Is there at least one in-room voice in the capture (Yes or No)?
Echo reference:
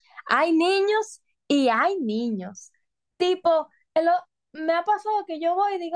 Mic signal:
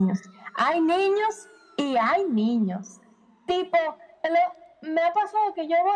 No